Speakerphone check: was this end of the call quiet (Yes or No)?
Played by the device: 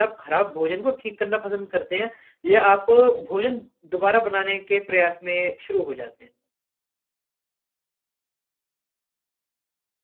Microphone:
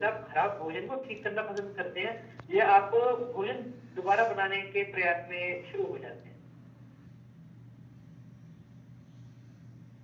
Yes